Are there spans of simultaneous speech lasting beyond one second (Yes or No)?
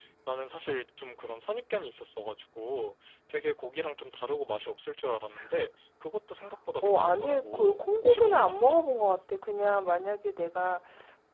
Yes